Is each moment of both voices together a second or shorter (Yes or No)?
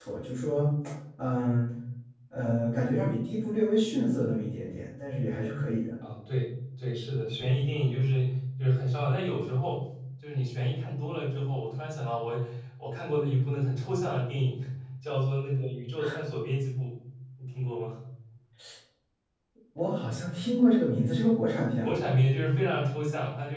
Yes